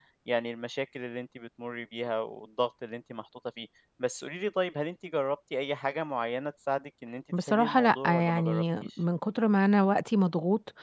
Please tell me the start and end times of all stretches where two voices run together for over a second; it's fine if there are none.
7.5-8.9

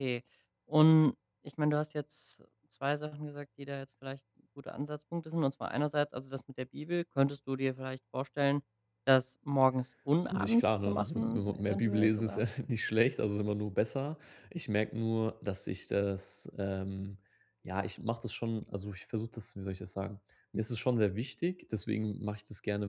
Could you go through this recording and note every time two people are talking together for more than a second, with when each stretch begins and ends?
10.3-12.4

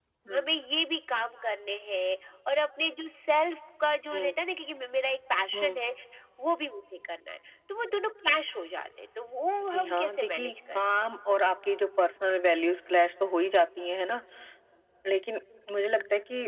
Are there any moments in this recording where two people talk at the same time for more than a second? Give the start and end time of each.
9.6-10.8

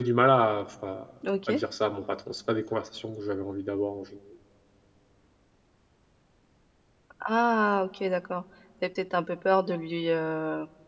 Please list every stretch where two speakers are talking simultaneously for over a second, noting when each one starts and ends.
none

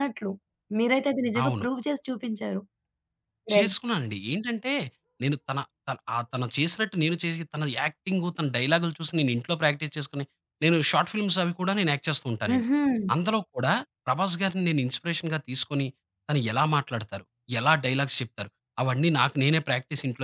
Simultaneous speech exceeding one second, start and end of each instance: none

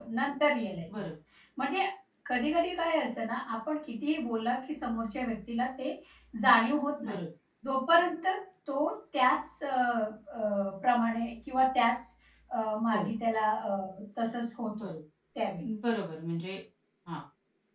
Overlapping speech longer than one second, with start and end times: none

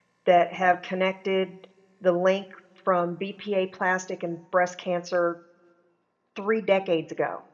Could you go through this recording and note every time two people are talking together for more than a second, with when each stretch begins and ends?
none

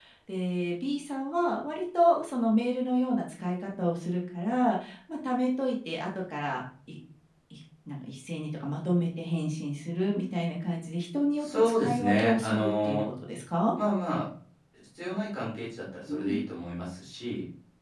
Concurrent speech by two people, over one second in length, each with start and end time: 11.4-13.0

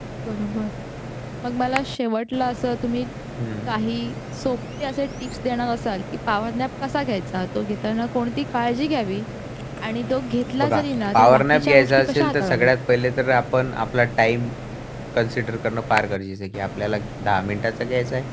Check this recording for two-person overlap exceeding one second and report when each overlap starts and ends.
11.1-12.7

